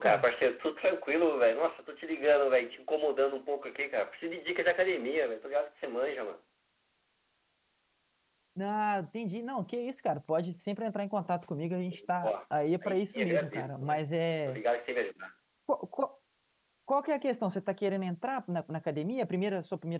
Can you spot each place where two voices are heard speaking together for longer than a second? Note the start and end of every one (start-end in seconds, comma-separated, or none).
12.8-14.0